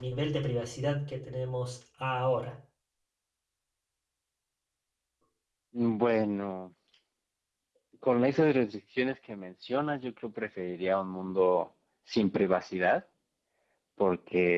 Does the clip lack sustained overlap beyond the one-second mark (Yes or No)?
Yes